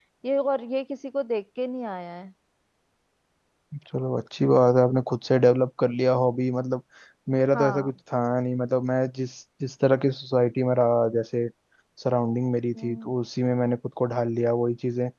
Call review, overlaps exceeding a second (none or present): none